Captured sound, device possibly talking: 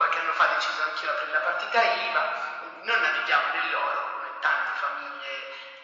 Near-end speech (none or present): none